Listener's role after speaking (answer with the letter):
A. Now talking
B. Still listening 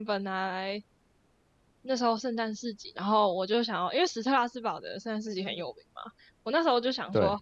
B